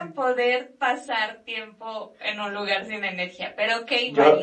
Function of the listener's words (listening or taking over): taking over